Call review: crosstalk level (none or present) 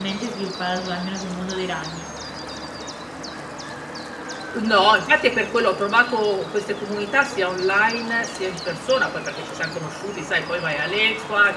none